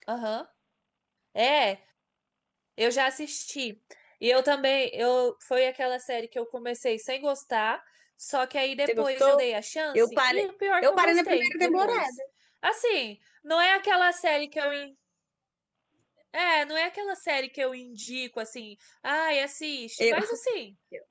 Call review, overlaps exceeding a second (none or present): present